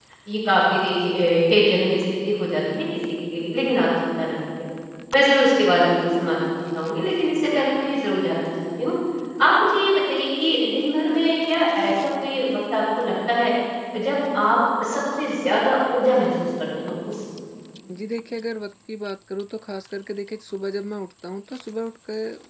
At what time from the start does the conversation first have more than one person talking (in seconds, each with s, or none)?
none